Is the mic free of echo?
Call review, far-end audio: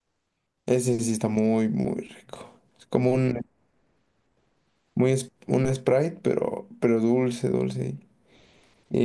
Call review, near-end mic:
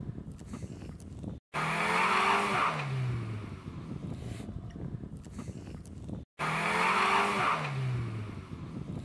Yes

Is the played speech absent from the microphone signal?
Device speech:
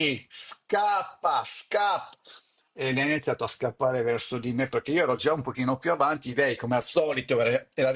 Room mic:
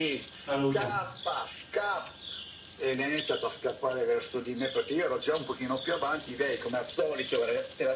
No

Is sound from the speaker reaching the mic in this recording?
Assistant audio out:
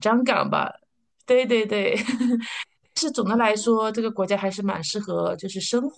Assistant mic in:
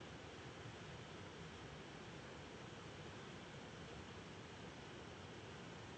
No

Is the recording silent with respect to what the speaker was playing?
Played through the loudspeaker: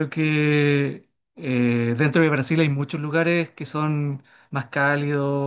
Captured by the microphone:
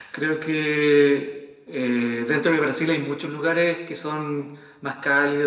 No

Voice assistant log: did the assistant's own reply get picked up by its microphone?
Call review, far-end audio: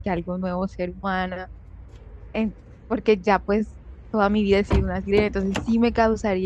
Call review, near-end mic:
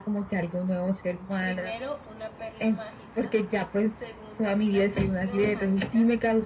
Yes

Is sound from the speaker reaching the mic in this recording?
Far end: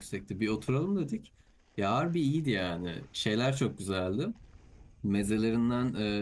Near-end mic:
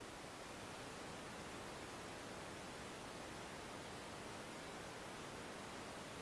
No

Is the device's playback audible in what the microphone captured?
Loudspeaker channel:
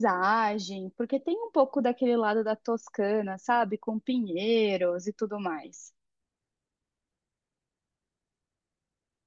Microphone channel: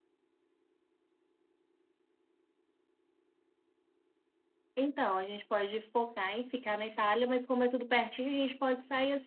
No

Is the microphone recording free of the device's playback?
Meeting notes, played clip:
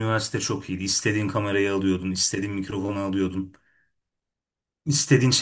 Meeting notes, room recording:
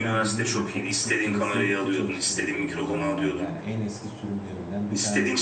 No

